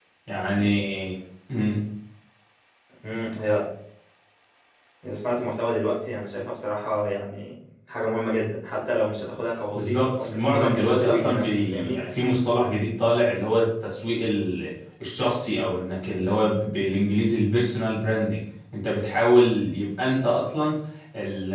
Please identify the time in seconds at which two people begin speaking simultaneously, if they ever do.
9.7 s

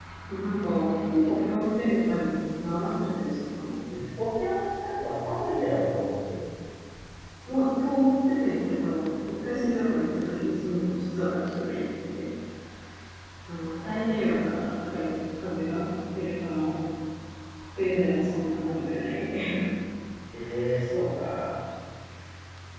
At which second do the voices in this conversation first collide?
none

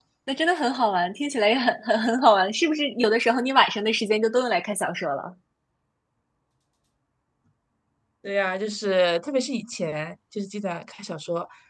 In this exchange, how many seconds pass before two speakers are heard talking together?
none

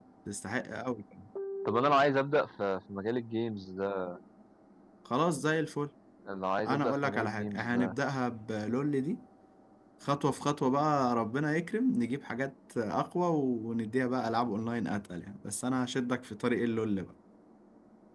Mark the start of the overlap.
6.7 s

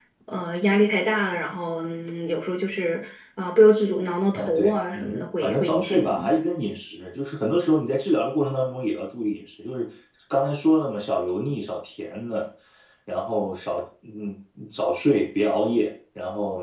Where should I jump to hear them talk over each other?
4.3 s

